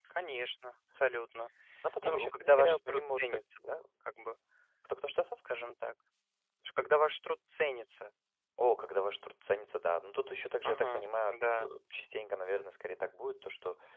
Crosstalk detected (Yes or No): Yes